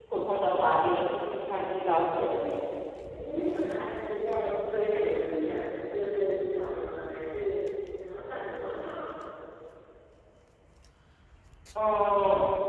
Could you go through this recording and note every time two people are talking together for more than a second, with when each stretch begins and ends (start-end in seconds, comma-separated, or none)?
none